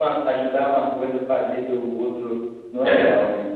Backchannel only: No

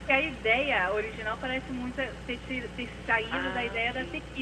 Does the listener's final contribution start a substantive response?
Yes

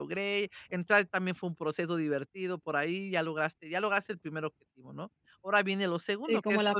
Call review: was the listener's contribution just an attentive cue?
No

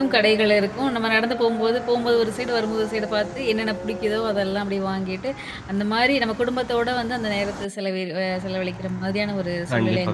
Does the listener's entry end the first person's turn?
Yes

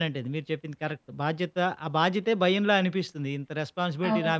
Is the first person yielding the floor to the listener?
No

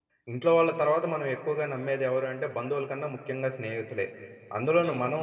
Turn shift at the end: No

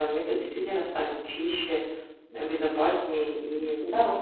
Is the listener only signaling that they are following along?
No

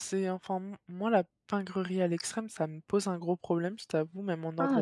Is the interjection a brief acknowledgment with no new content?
No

